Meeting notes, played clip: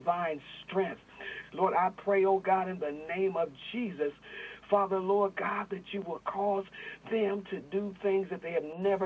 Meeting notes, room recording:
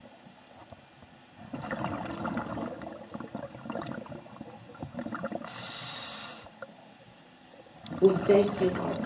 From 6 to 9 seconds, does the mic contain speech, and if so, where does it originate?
user only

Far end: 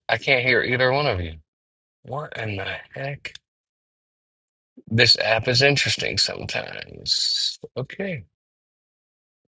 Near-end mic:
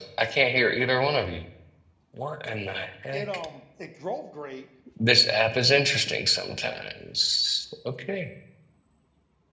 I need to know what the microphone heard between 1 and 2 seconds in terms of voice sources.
echo only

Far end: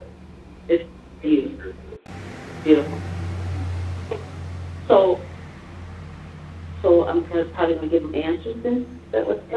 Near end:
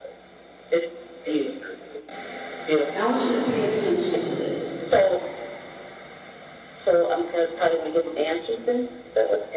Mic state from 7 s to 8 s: echo only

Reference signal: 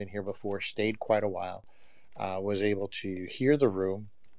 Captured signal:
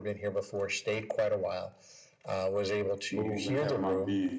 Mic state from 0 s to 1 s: echo only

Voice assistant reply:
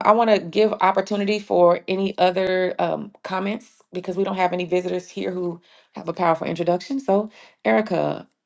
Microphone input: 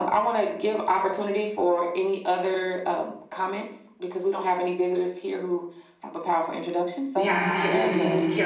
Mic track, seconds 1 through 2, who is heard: echo only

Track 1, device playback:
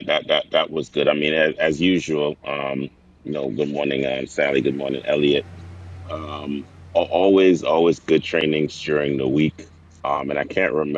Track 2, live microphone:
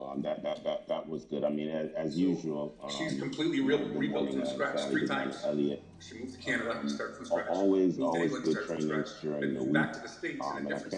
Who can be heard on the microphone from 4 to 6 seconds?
both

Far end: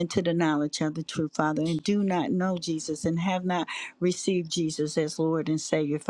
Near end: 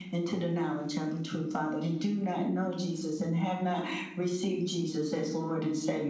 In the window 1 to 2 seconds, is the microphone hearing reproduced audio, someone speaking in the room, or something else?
echo only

